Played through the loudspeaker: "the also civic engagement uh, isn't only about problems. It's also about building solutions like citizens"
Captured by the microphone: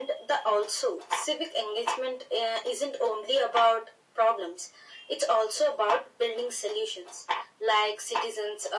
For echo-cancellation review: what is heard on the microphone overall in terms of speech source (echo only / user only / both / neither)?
echo only